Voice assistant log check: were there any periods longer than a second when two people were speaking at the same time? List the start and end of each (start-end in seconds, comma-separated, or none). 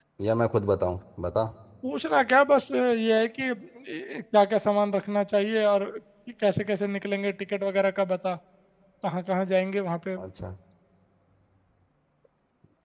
none